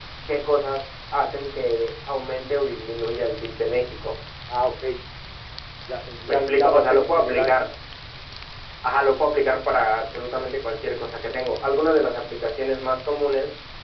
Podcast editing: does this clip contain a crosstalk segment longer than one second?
Yes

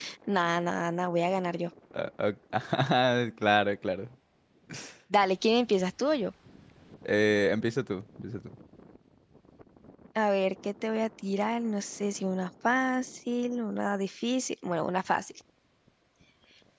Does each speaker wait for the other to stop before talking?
Yes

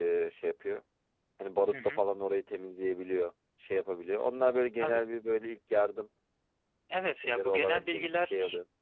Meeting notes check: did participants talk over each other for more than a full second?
Yes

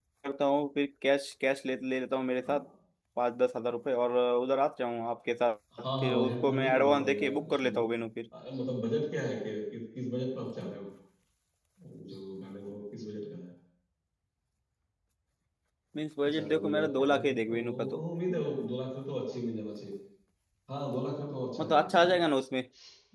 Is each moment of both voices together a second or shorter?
No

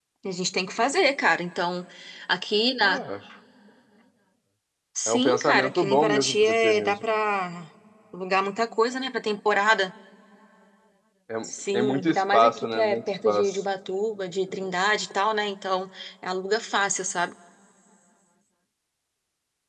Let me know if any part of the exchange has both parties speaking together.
Yes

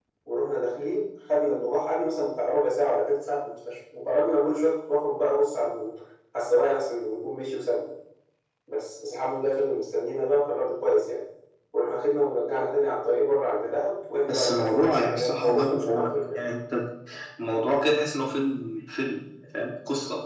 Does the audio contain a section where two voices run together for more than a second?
Yes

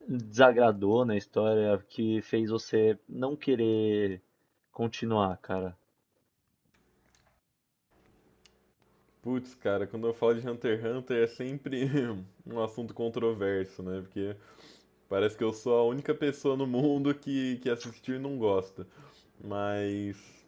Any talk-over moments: No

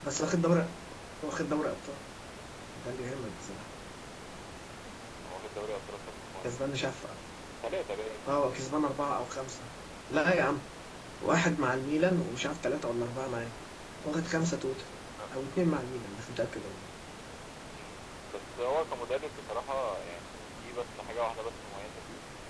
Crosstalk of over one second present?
No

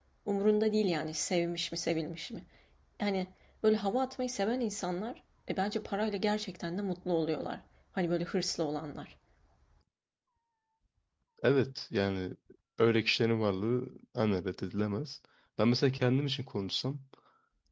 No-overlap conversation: Yes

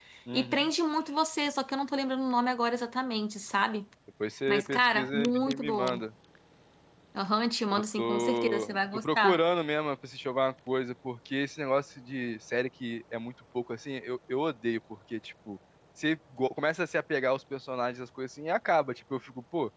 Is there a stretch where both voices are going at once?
Yes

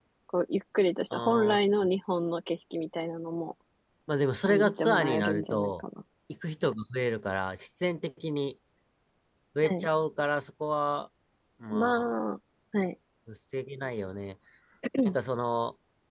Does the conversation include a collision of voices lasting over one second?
Yes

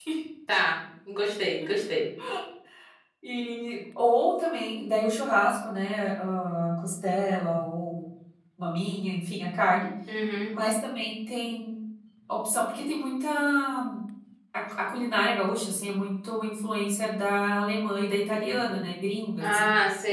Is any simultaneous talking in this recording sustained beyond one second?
No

